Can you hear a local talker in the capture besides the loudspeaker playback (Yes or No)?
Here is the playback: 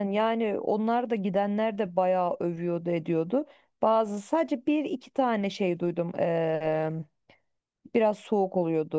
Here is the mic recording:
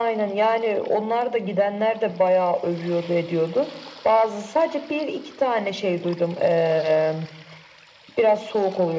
No